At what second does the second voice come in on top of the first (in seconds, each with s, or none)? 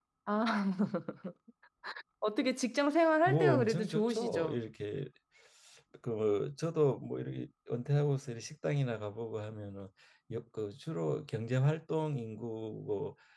3.3 s